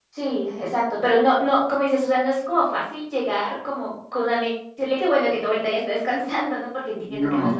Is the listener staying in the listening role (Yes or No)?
No